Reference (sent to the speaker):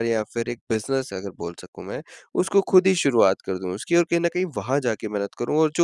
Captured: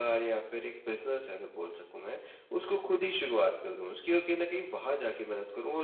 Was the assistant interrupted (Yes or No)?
No